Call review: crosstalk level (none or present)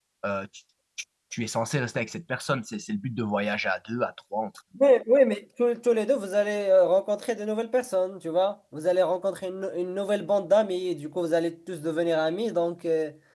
none